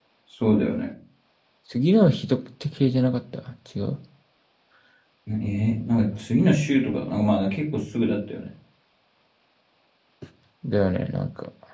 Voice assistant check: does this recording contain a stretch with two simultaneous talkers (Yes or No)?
No